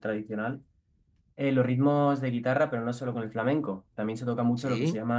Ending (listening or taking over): listening